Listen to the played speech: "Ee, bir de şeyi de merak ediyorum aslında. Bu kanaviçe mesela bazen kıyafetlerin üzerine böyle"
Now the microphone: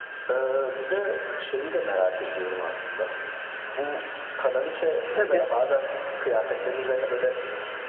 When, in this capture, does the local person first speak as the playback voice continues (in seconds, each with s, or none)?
5.1 s